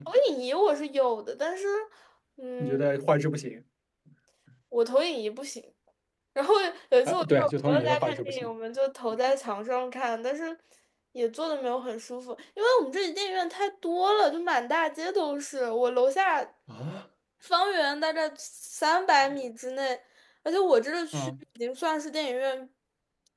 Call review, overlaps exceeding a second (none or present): present